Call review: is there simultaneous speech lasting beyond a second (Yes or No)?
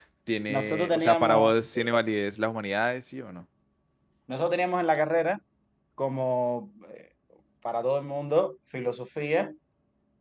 Yes